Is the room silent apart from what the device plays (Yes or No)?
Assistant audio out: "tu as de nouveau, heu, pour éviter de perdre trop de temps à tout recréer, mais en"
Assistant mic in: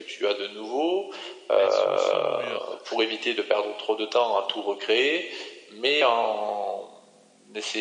No